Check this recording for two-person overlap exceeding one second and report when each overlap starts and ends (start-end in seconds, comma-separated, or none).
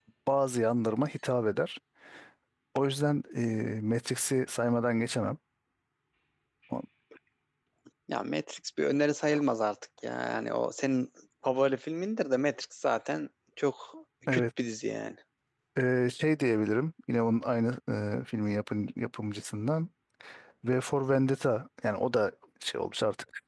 none